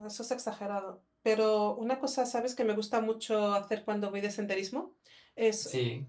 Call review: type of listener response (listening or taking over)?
listening